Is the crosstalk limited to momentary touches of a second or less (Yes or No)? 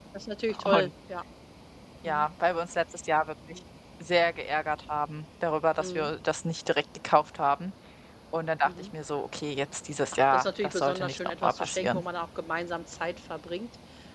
No